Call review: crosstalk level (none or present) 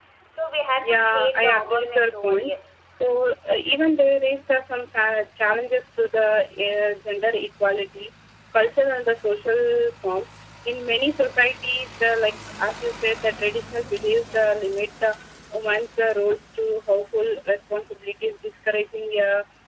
present